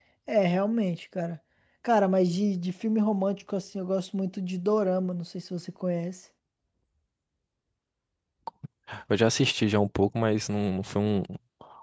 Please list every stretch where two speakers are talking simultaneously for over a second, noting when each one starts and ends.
none

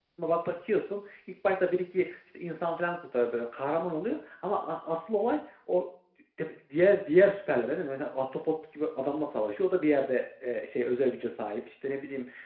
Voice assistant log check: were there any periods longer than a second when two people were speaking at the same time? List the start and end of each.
none

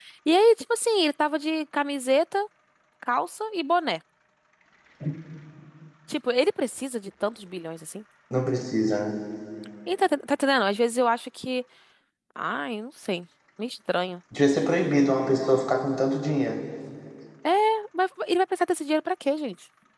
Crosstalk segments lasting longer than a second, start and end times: none

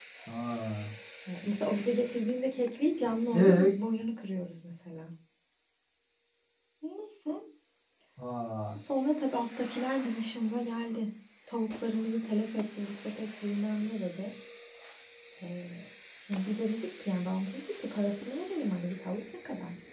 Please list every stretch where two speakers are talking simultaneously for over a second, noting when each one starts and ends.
none

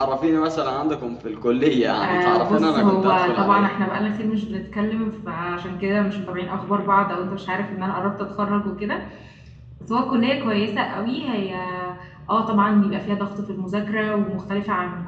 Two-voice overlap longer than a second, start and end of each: 2.0-3.7

